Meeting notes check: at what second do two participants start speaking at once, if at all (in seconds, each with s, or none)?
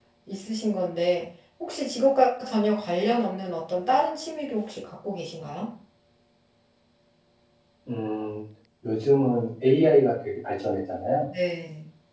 none